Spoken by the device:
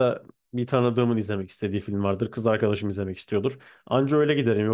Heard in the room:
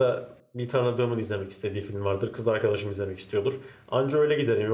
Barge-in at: none

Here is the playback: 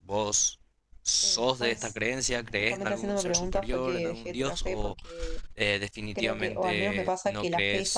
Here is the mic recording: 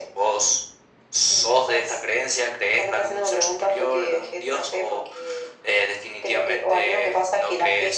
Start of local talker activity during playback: none

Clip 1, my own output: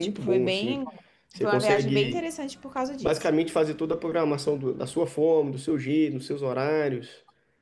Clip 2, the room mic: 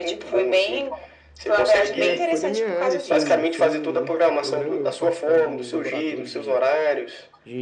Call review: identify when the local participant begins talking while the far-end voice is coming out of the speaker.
2.0 s

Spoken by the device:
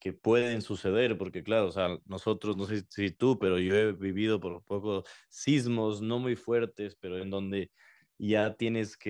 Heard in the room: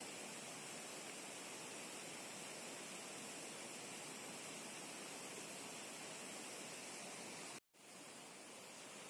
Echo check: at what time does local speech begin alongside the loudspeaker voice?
none

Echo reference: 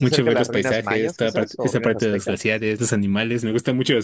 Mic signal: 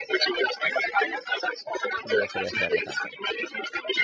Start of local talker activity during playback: 1.9 s

